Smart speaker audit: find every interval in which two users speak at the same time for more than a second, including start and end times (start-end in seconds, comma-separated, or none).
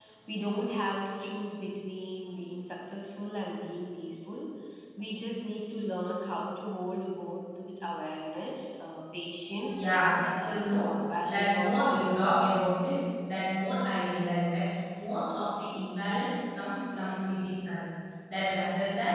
9.8-12.5